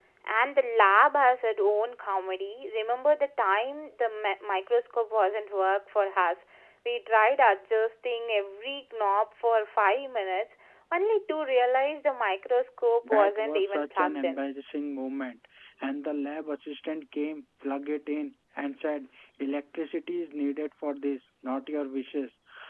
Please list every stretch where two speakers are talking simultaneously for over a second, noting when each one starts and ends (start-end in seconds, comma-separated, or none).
13.0-14.4